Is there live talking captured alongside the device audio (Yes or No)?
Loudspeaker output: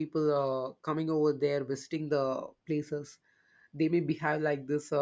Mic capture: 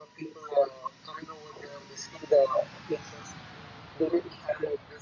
No